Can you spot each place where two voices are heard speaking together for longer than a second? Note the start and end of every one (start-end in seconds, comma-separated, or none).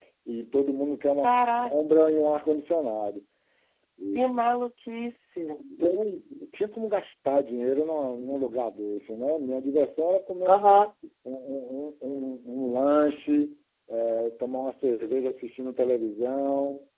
none